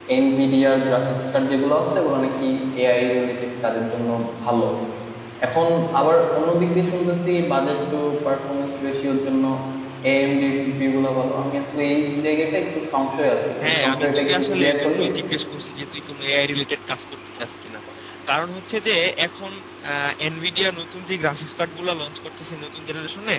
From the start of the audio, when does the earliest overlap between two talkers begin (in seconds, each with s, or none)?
13.6 s